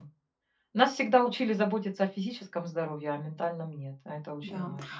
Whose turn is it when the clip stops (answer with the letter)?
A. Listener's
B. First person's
A